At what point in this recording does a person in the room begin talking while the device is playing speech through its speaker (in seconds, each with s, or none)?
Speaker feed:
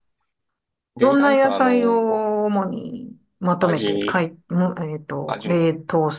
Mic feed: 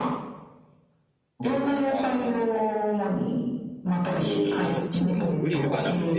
4.6 s